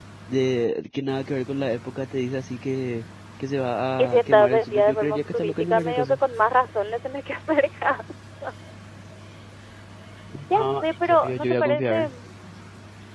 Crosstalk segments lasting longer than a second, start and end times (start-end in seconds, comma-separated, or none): 4.0-6.2, 10.5-12.1